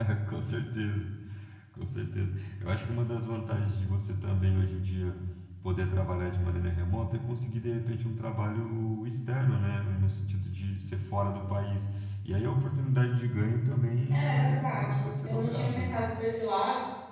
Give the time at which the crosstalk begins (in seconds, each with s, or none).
14.1 s